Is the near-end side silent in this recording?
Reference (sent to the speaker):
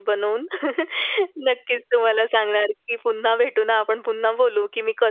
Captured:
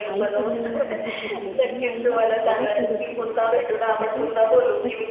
No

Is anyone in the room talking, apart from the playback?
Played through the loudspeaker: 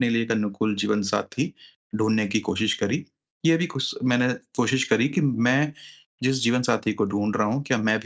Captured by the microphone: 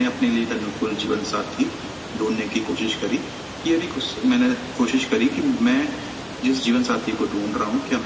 No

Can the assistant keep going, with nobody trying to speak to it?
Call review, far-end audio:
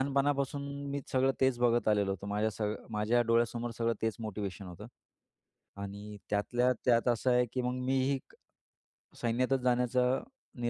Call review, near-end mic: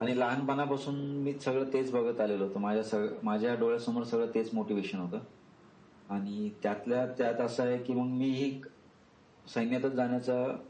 Yes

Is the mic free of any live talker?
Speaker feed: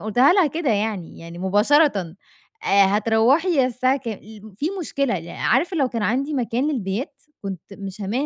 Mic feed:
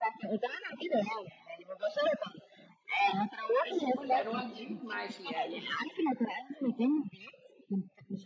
No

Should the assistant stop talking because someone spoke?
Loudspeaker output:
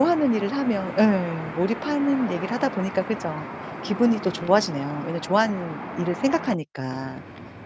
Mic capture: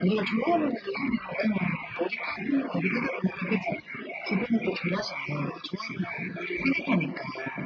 No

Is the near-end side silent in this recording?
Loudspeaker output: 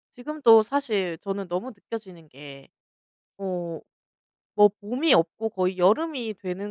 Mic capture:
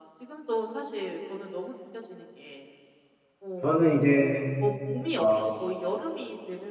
No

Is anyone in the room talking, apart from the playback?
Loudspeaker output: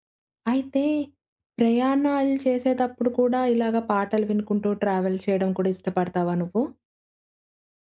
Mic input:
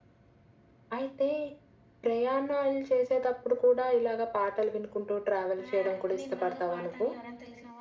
Yes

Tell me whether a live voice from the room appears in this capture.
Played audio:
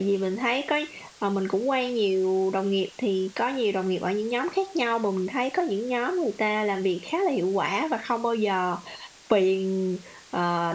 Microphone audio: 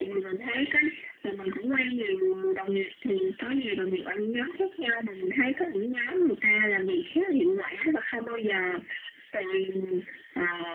No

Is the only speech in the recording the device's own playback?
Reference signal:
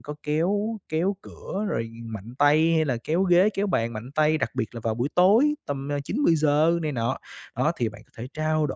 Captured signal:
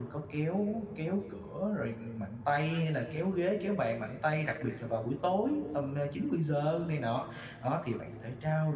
Yes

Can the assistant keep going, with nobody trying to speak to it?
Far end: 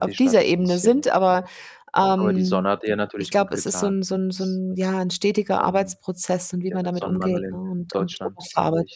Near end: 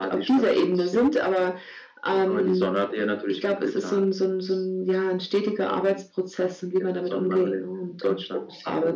Yes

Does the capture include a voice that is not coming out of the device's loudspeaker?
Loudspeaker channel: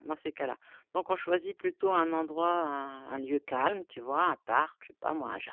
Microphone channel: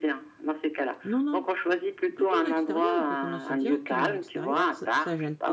Yes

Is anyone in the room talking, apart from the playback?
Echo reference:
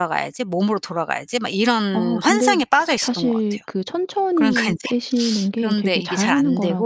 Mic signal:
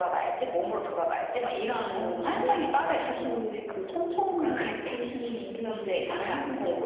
No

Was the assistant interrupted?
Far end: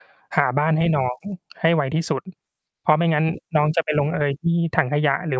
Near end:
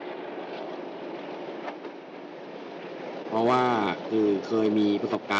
Yes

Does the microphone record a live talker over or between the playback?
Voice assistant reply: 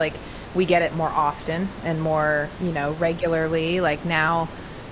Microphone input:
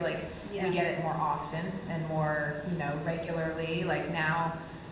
Yes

